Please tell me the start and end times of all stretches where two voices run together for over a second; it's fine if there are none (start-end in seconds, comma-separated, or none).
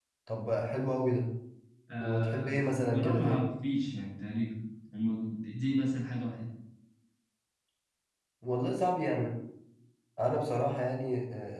2.0-3.4